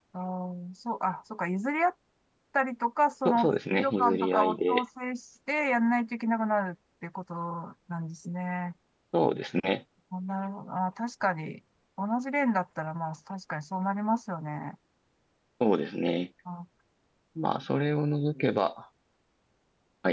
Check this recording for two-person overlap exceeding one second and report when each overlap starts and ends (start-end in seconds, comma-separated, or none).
3.2-4.8